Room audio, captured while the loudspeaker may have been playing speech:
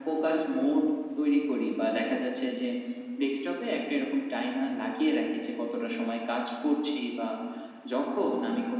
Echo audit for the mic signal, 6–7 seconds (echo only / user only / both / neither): echo only